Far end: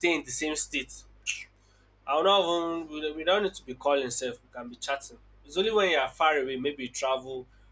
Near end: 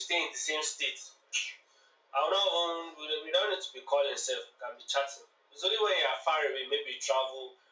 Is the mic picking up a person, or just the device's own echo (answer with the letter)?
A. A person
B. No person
B